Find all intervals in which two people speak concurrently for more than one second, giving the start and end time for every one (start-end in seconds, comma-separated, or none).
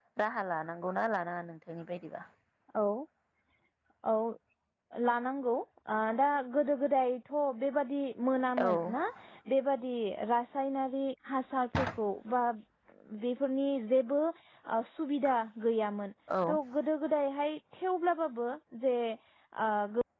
none